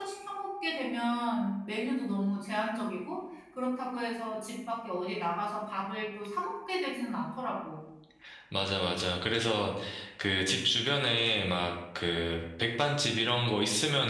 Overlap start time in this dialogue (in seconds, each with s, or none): none